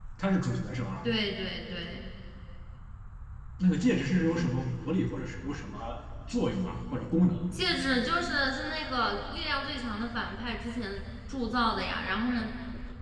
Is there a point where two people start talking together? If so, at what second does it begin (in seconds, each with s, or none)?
none